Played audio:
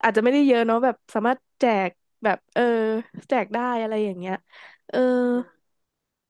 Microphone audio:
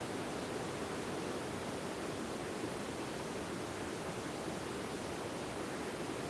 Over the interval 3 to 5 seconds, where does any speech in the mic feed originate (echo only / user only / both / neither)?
neither